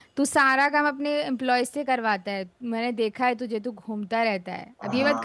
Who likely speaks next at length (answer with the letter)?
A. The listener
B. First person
A